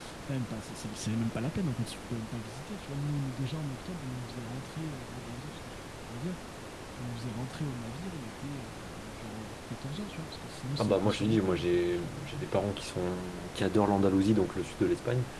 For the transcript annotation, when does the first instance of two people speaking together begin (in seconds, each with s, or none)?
10.8 s